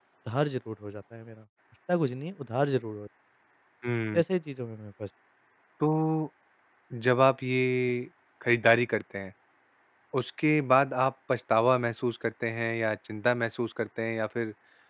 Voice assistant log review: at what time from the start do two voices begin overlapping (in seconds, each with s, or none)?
none